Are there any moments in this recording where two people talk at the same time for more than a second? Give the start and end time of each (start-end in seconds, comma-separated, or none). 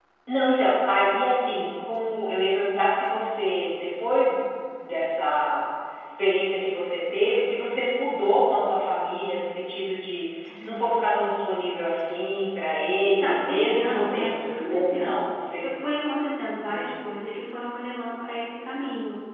13.0-15.7